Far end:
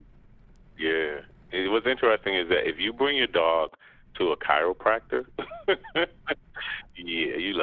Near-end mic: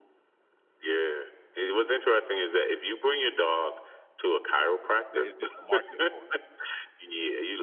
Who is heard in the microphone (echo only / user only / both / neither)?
both